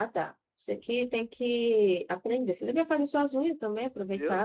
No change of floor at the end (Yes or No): No